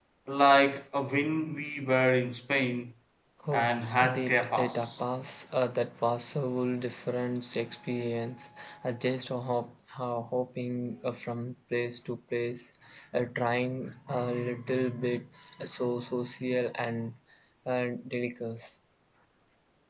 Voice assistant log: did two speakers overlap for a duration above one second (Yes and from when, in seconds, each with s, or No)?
Yes, from 3.5 s